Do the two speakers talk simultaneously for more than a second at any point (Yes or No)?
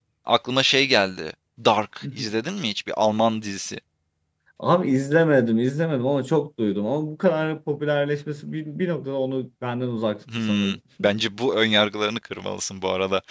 No